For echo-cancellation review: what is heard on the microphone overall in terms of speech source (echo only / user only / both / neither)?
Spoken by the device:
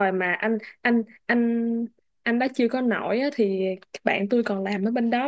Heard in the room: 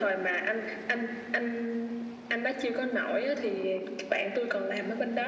echo only